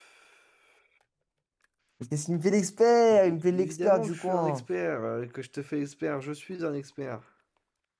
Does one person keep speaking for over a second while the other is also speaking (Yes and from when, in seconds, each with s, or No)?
Yes, from 3.1 s